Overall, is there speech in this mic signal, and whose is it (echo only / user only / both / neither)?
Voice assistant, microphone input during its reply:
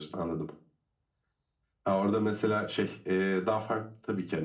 echo only